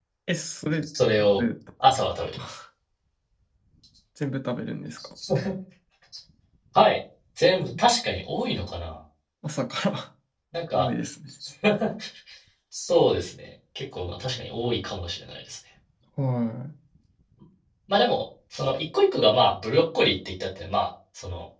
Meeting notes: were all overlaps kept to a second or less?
Yes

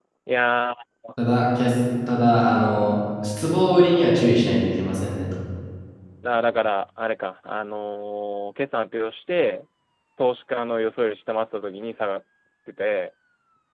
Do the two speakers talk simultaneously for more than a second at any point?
No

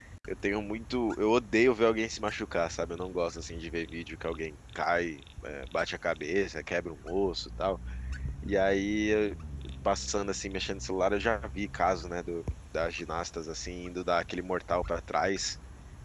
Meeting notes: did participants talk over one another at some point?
No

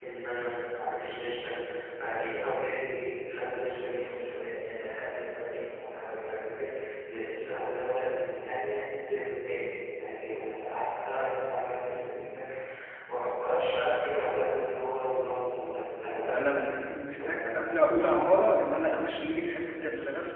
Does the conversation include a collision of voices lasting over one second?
No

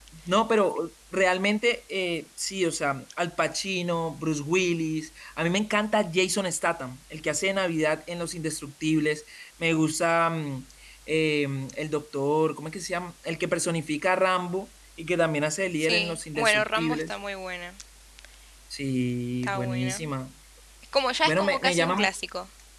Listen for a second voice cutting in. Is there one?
Yes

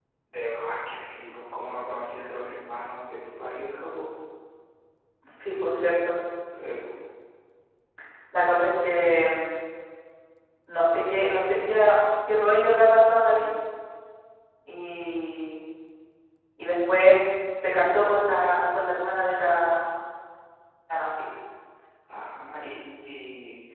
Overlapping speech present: No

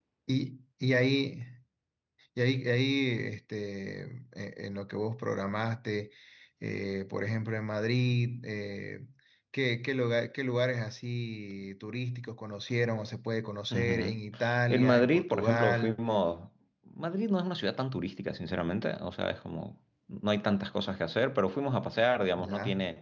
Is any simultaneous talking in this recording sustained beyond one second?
Yes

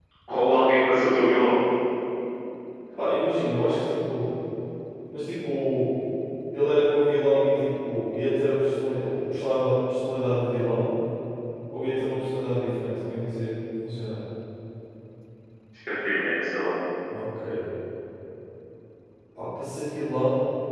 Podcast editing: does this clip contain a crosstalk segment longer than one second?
No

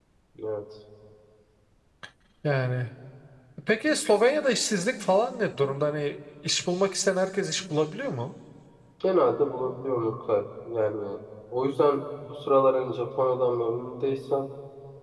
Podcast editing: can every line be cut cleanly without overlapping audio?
Yes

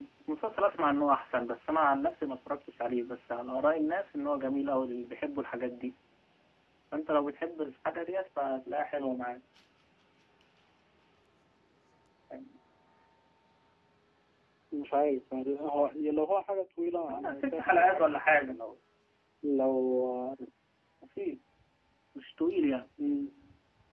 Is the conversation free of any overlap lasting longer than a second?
No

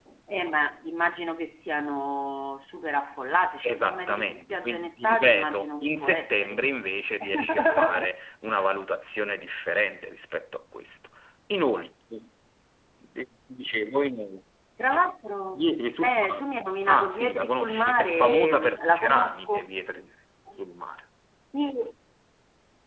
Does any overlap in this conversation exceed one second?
Yes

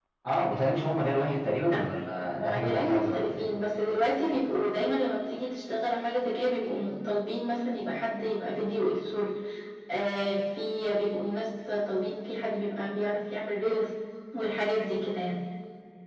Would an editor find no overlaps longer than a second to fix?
No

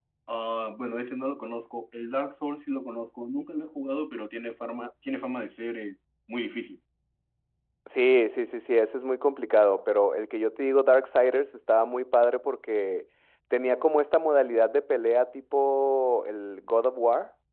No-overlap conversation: Yes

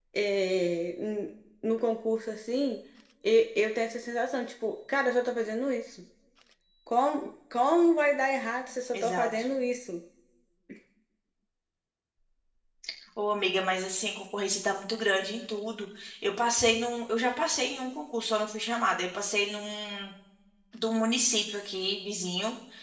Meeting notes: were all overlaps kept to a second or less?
Yes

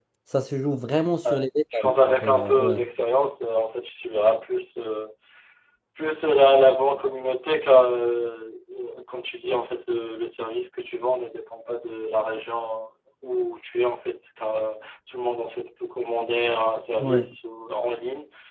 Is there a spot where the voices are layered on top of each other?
Yes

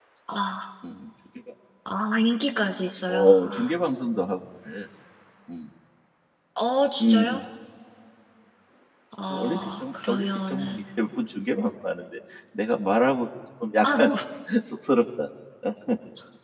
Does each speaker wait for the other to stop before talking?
No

